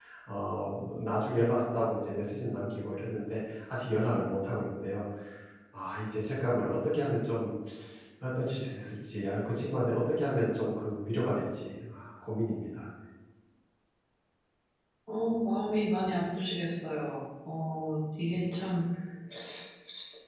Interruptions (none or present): none